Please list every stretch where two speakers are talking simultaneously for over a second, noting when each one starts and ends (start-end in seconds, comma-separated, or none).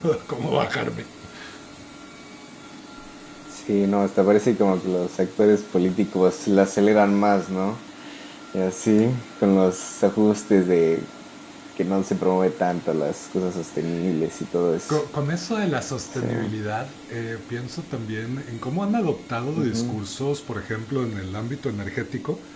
none